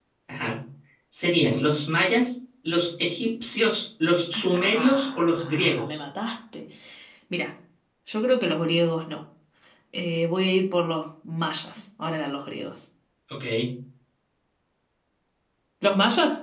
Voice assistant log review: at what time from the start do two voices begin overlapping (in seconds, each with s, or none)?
4.3 s